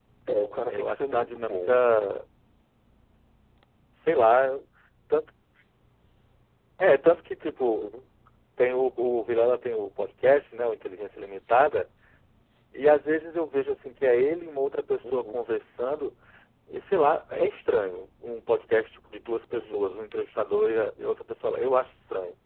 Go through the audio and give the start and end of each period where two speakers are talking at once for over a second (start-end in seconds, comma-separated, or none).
0.7-1.9